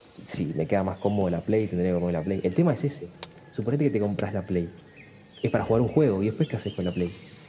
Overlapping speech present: No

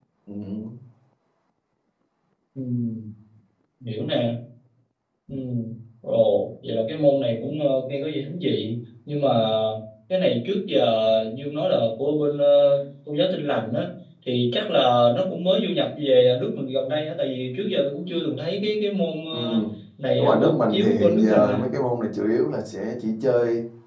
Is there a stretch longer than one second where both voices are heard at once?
Yes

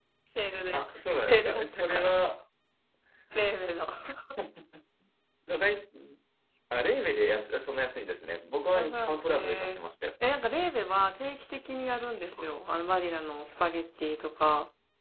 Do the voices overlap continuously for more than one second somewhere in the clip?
Yes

